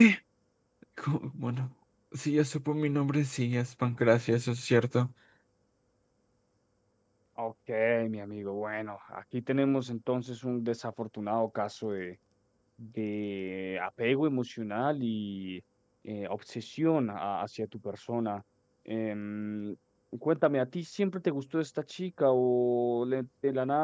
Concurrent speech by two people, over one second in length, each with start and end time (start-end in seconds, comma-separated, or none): none